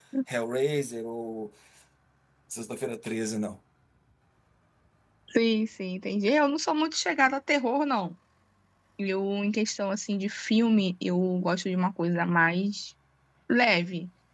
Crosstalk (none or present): none